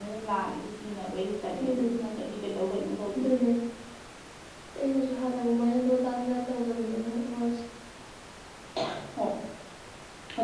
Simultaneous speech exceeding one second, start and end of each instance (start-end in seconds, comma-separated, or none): none